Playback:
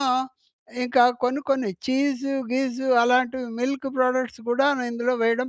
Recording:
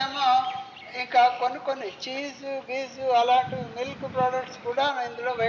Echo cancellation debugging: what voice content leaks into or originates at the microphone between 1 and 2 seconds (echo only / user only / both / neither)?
echo only